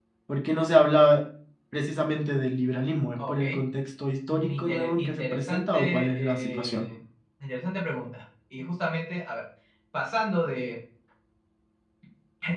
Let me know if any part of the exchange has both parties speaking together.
Yes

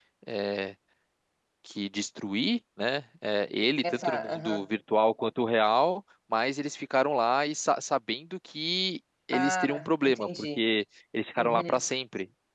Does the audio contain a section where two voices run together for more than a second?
Yes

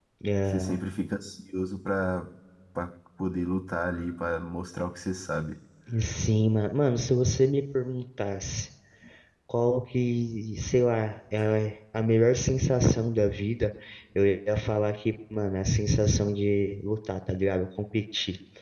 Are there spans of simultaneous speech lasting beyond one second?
No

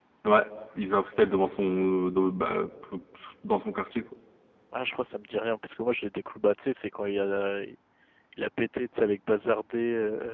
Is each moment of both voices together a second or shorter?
Yes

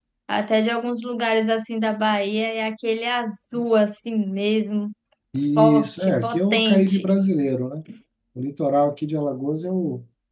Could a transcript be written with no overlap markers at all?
No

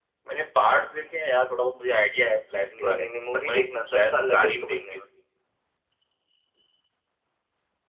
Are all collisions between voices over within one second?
No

